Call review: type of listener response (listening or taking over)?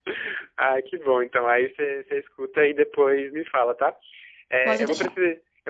listening